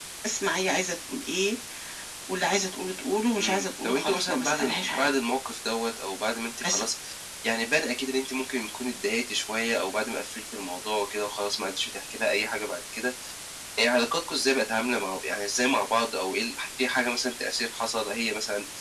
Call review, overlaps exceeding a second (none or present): present